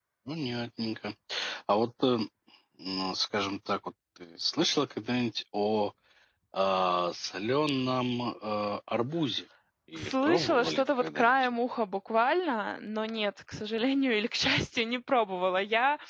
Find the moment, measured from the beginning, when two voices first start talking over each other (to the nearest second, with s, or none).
10 s